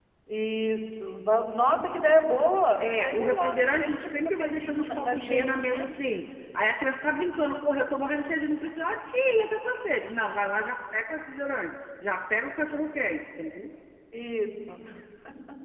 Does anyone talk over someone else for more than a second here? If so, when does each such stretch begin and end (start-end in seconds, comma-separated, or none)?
2.8-5.9